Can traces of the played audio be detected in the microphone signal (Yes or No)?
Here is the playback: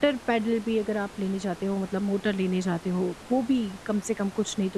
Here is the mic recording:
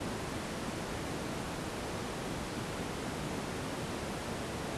No